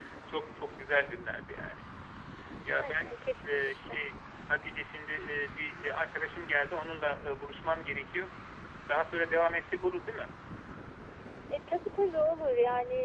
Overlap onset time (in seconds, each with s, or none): 2.7 s